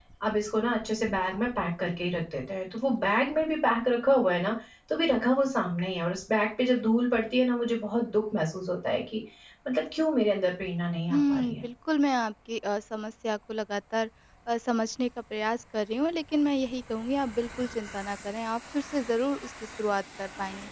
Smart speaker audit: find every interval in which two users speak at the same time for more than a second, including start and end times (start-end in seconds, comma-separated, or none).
none